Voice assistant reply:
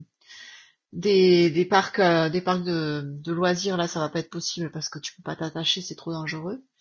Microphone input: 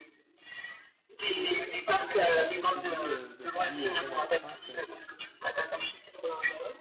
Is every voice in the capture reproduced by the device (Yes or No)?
No